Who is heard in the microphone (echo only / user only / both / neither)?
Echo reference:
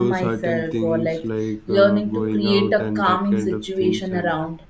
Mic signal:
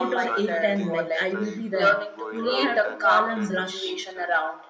both